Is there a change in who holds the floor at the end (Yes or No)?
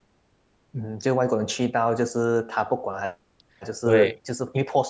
No